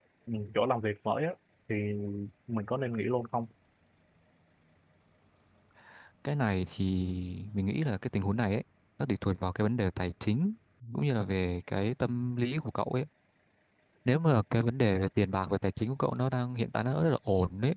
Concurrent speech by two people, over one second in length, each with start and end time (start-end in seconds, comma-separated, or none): none